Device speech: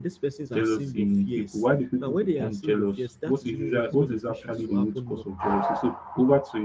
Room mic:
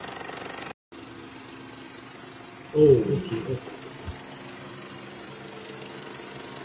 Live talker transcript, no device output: Oh, okay, okay, okay.

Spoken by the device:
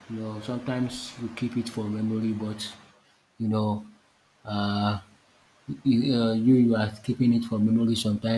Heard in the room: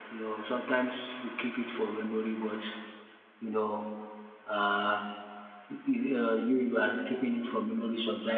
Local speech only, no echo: none

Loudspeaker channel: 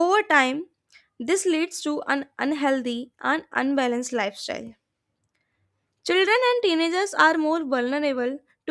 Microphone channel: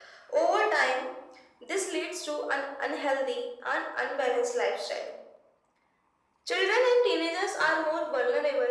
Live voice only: none

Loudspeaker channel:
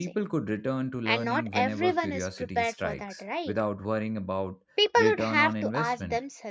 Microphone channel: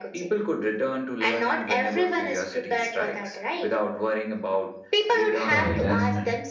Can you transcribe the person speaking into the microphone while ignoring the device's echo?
Right, and

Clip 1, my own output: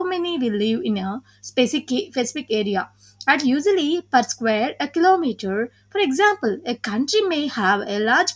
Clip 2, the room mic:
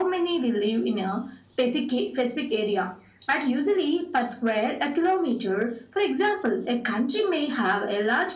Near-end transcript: none

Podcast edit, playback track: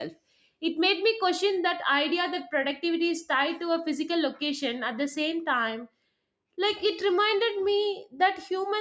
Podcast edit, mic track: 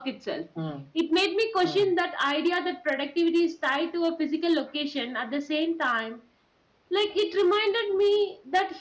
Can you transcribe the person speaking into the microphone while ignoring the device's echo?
Hmm. Hmm.

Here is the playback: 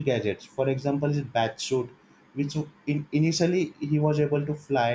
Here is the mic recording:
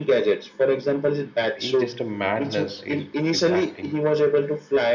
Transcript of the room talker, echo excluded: He just a madness is with acting.

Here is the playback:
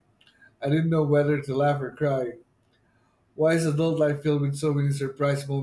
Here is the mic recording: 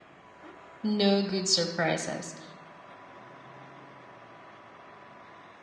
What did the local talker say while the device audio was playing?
No good surprises,

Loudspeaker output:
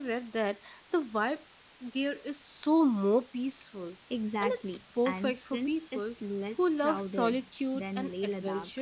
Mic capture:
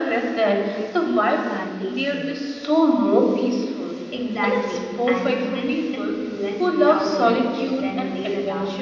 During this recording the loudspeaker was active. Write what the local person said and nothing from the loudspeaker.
like the tea plantations,

